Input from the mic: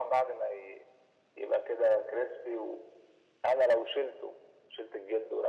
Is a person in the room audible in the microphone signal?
No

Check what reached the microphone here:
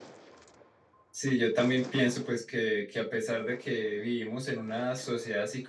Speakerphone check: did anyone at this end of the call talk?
Yes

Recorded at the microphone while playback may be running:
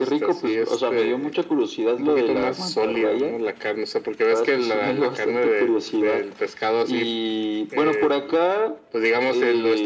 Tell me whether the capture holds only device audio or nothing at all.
Yes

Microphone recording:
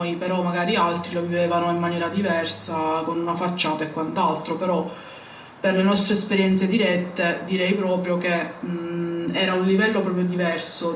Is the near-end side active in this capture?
Yes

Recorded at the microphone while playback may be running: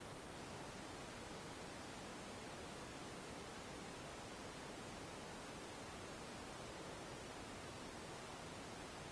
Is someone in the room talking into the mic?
No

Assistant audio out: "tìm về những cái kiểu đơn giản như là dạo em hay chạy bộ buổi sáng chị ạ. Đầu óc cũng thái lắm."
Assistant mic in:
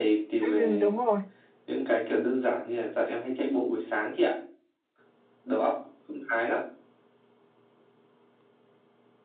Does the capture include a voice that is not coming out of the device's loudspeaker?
Yes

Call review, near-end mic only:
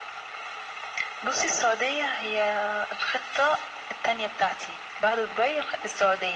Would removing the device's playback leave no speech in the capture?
Yes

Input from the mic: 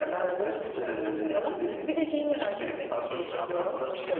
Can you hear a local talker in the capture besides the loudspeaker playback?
Yes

